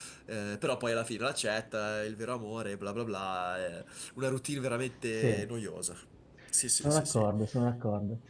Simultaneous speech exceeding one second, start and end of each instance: none

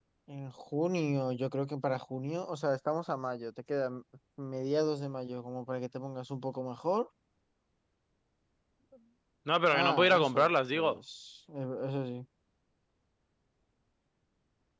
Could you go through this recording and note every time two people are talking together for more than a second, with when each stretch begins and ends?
9.7-11.0

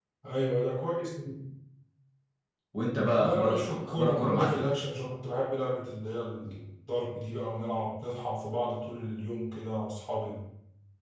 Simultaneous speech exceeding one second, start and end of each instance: 3.2-4.6

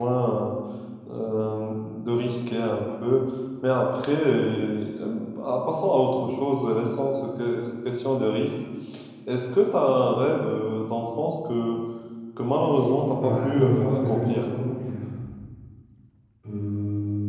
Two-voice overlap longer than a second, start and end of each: 13.2-14.5

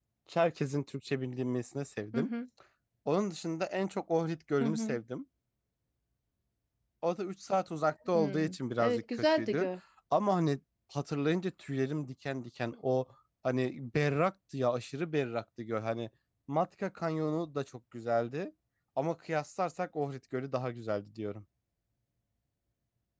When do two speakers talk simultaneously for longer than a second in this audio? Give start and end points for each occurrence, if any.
8.1-9.7

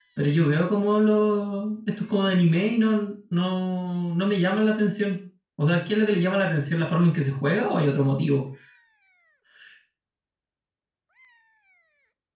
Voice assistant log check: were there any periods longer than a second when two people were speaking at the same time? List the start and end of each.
none

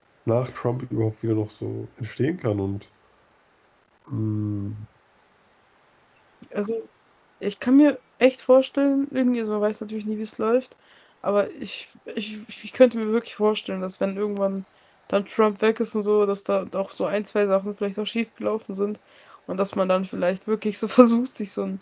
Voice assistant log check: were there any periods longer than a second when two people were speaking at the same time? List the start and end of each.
none

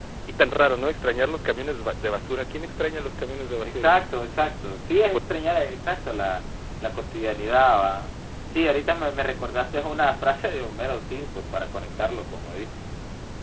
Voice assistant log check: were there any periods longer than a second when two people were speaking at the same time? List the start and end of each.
none

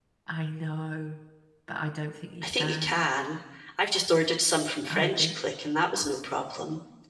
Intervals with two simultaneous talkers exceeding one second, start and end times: none

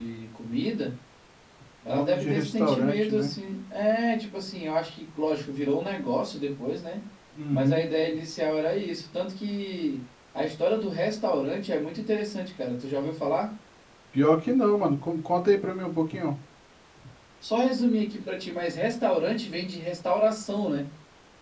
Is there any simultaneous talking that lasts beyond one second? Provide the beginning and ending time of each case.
1.9-3.3

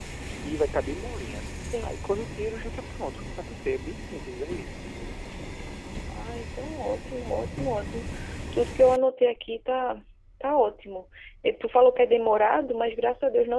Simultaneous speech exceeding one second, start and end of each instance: none

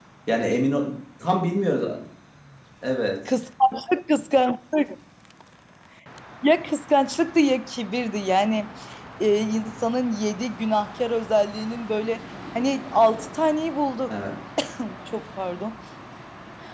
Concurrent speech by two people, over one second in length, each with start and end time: none

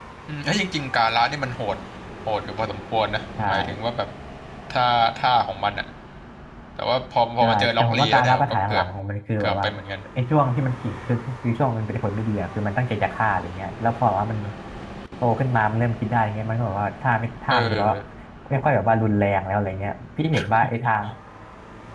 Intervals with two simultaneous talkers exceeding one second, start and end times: 7.4-8.8

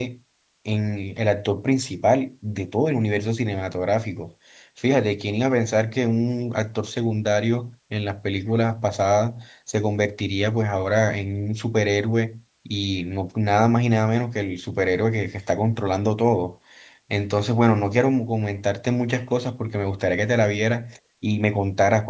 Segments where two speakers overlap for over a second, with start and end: none

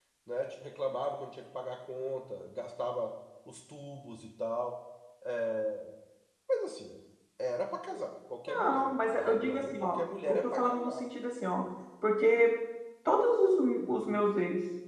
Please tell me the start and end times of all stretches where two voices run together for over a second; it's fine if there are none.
8.5-11.1

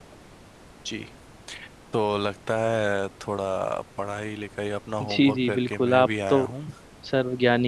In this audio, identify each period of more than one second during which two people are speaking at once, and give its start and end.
5.0-6.4

